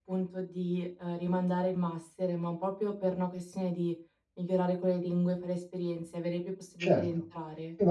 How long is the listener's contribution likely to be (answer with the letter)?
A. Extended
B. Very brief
A